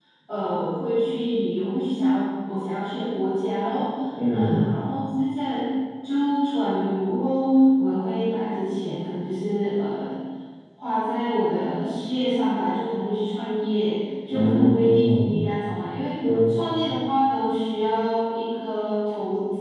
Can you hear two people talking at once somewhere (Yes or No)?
Yes